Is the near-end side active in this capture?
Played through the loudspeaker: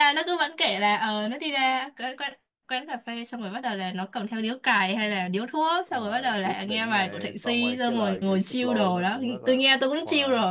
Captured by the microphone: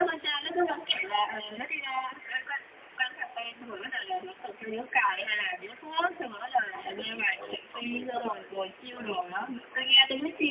No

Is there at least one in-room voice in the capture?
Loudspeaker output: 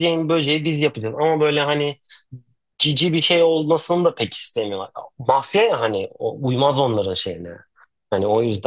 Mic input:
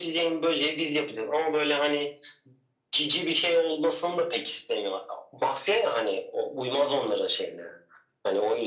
No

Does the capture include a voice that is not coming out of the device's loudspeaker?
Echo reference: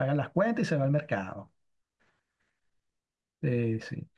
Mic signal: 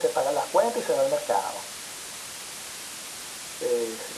No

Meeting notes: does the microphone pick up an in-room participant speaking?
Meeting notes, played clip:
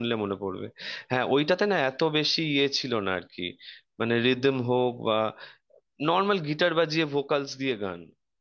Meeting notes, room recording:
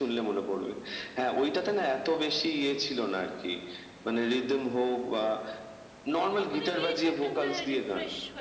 Yes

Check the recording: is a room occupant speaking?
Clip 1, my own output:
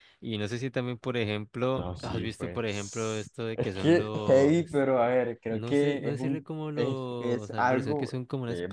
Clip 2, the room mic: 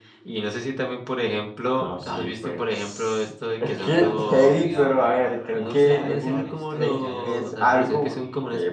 Yes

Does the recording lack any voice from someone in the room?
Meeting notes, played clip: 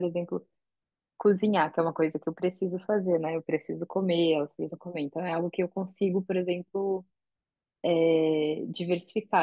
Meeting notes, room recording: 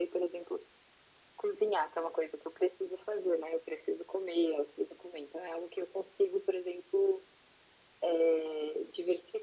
Yes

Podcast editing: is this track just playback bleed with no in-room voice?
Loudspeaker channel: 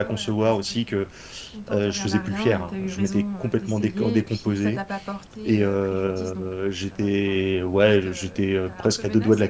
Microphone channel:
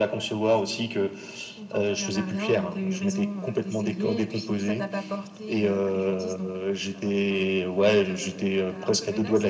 Yes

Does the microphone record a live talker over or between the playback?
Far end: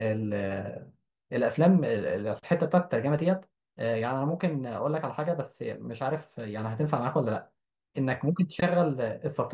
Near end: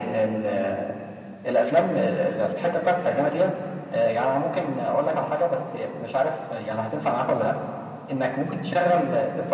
No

